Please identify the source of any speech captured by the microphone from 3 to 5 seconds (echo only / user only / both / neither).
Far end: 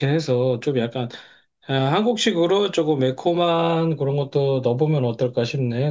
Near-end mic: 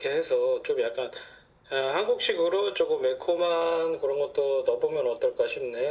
echo only